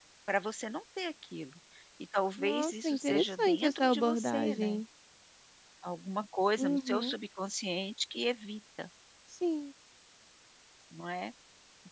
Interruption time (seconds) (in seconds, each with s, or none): 2.4 s